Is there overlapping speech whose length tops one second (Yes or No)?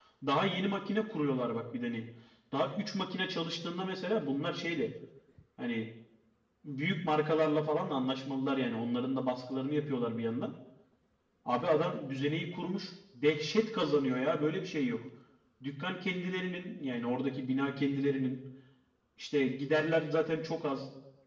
No